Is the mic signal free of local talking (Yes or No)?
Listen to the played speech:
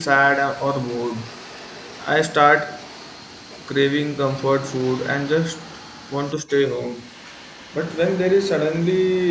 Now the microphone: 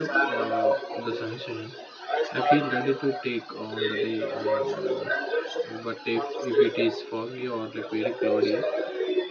No